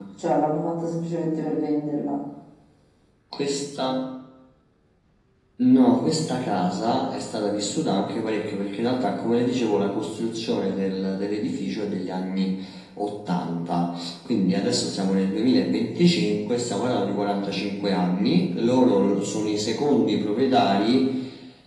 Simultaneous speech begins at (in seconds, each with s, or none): none